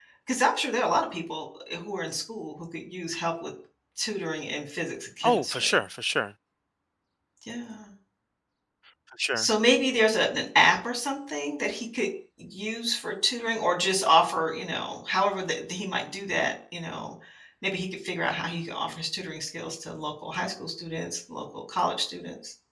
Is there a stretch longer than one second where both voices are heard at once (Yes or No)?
No